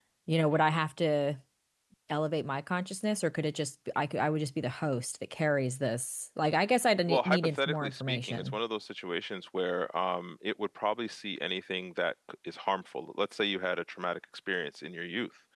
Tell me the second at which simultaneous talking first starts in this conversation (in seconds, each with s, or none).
7.1 s